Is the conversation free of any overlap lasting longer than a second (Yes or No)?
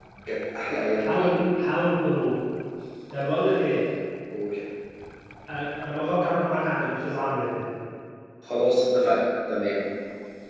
Yes